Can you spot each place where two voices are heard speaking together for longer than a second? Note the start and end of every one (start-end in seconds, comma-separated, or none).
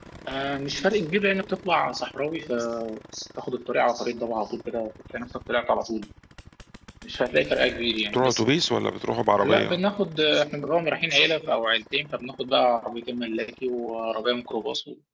none